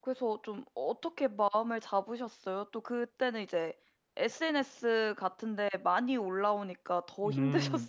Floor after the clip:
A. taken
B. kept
A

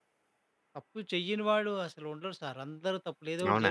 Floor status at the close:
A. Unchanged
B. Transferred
B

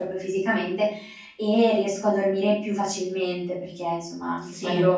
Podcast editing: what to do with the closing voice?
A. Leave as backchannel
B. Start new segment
A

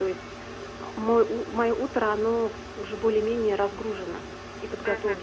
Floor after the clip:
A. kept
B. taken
B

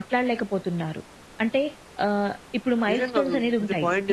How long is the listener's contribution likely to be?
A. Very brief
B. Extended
B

